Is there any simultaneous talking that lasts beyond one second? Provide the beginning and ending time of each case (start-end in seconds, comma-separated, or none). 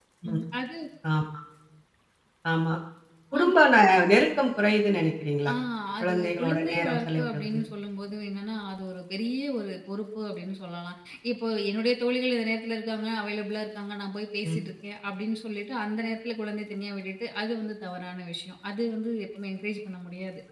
6.0-7.6